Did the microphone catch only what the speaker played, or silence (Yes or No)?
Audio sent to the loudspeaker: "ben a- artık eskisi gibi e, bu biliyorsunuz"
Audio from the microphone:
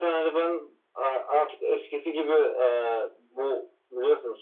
Yes